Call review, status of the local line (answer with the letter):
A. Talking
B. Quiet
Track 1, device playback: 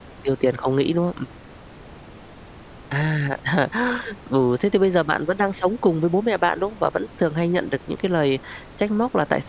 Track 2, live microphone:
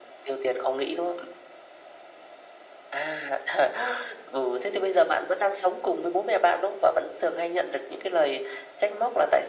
B